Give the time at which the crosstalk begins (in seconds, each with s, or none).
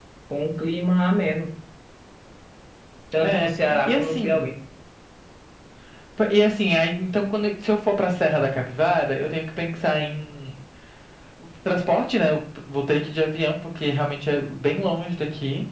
3.2 s